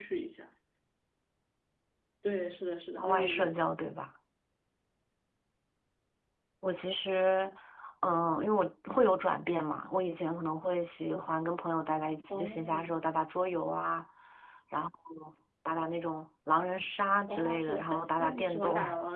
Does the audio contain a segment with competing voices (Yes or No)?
Yes